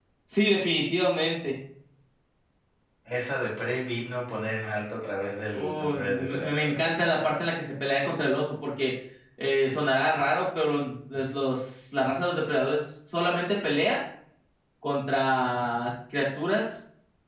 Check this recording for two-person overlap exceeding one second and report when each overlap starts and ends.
5.5-6.8

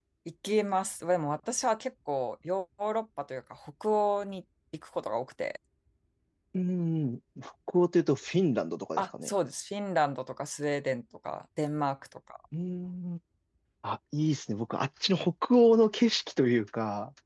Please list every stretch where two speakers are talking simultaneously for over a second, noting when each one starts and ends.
none

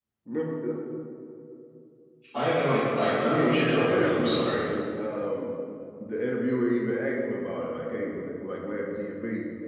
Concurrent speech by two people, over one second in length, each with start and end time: 3.2-4.6

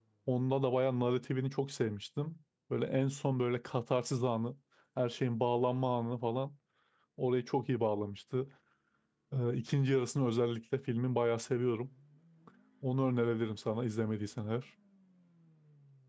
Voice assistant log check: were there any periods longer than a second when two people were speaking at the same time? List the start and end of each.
none

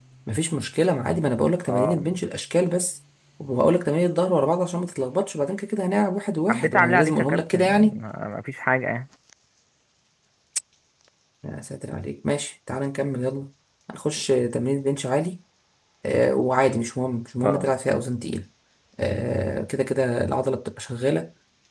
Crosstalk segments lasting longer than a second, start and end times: 6.5-8.0

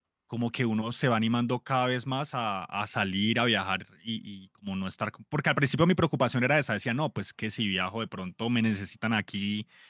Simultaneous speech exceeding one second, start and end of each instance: none

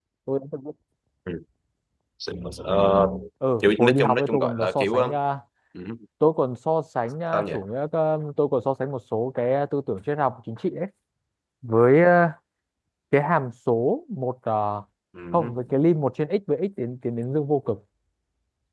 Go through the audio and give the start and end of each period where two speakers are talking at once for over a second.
3.6-5.1

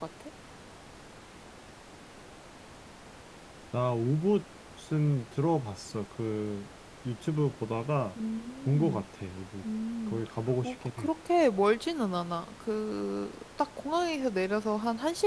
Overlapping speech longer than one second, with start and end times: none

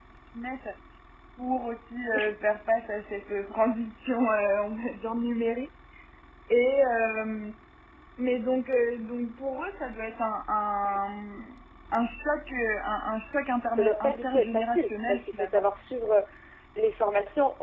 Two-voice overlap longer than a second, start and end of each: 13.8-15.5

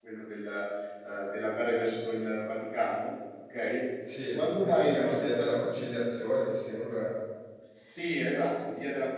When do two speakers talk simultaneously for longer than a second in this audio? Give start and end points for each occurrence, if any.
4.3-5.6

